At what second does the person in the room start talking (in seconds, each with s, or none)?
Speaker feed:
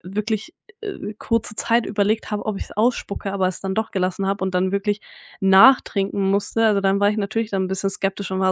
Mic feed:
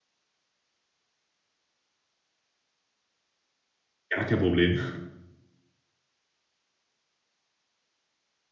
4.1 s